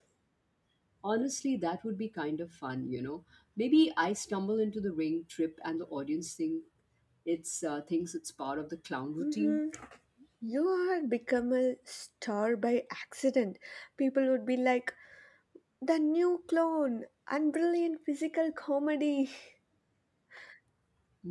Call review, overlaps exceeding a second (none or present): none